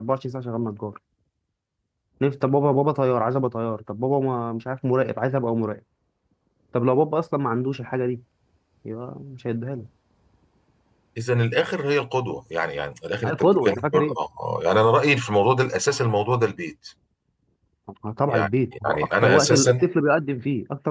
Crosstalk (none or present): present